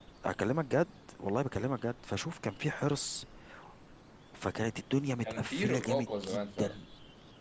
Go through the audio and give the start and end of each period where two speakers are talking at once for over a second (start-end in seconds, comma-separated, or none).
5.2-6.8